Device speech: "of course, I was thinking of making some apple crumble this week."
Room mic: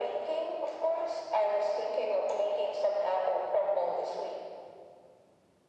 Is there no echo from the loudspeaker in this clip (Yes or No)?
No